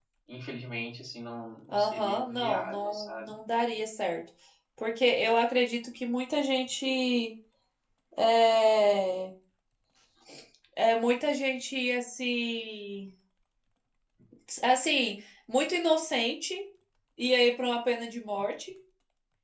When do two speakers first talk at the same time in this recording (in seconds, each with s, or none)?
1.7 s